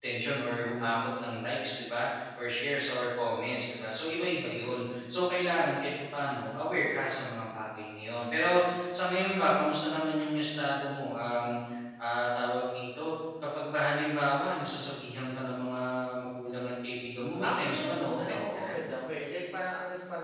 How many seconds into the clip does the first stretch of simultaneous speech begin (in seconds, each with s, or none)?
17.4 s